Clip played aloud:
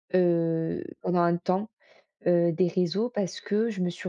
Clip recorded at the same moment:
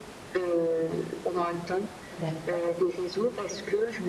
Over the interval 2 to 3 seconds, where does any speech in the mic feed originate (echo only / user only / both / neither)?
both